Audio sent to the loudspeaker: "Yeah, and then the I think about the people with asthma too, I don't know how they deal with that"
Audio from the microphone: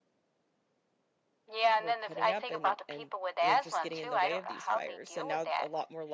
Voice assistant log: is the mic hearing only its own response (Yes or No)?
No